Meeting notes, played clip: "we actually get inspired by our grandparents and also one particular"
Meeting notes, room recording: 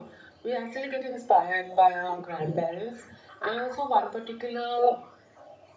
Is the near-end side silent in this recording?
Yes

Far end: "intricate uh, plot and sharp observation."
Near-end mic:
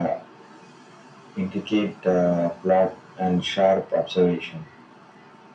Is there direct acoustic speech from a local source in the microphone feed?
No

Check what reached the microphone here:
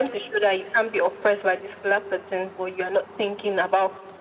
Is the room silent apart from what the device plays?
Yes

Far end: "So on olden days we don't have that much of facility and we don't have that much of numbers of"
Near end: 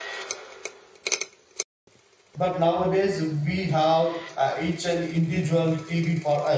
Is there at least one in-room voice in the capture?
Yes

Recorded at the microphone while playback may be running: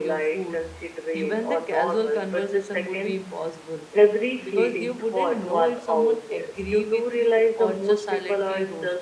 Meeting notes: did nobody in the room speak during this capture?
No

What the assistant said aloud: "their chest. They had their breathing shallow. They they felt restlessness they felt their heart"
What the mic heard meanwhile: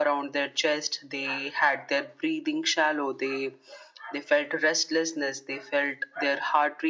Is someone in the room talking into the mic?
No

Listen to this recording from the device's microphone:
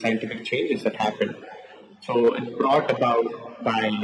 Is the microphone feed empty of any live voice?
Yes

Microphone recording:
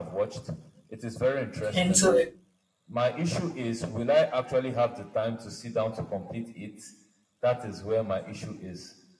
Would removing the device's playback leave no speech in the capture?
No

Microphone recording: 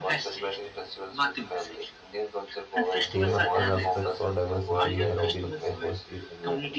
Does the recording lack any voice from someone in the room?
No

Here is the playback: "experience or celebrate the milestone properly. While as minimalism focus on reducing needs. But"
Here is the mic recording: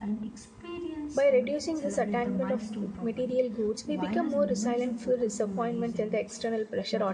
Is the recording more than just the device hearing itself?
Yes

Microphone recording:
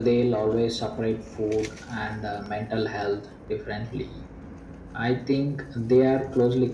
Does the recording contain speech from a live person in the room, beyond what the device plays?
No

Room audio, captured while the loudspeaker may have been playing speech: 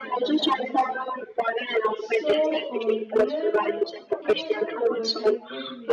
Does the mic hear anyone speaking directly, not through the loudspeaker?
Yes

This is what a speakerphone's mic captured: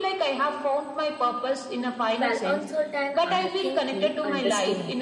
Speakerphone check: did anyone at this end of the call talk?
Yes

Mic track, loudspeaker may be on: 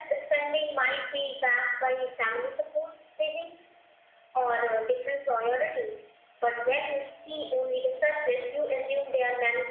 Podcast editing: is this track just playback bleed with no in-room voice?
Yes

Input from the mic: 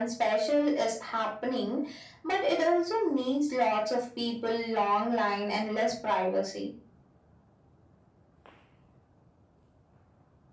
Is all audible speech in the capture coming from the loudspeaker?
Yes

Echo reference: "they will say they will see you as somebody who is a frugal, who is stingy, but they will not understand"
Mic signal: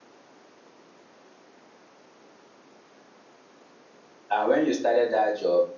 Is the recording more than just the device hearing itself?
Yes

